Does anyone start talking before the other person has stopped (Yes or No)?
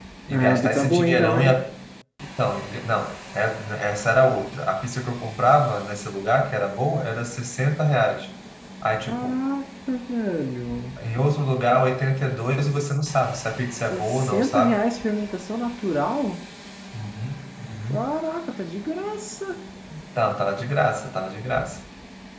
Yes